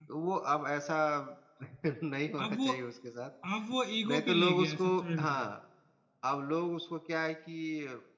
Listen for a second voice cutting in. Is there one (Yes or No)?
Yes